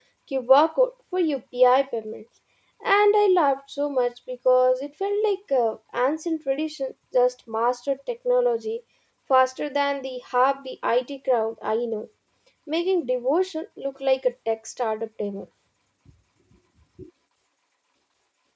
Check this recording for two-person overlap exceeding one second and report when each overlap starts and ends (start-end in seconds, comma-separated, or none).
none